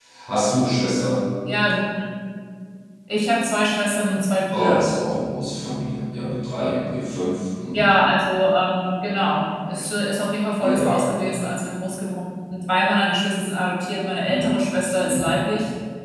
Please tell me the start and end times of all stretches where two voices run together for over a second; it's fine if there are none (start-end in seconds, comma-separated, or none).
none